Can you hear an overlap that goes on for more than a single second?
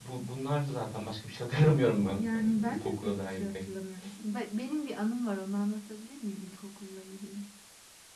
Yes, from 2.2 s

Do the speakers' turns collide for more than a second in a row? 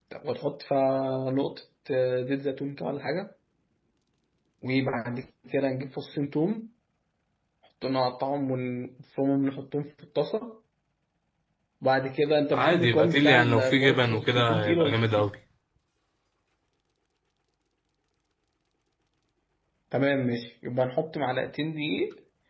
Yes, from 12.5 s

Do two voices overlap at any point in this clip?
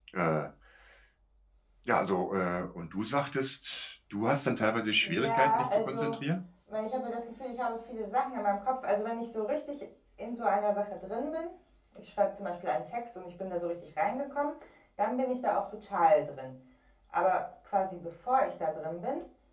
Yes, from 5.0 s

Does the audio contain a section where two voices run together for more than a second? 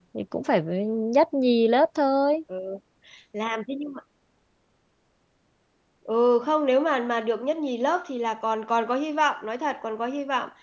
No

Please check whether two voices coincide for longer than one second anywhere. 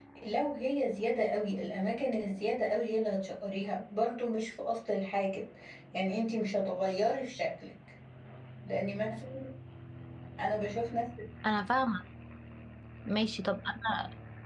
No

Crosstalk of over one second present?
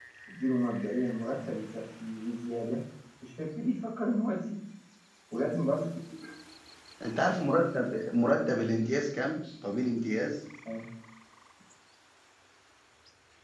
No

